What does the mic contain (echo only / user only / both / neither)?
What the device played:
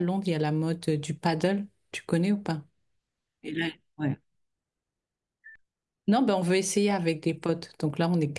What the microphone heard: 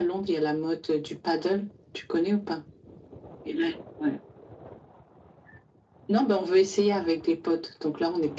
echo only